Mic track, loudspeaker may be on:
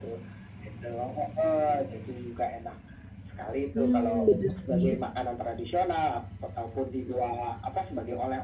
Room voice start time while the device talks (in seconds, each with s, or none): 3.7 s